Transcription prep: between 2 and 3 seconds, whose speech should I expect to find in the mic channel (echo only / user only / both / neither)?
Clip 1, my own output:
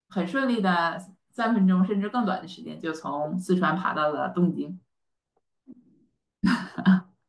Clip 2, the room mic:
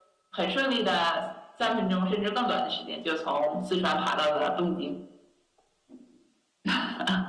echo only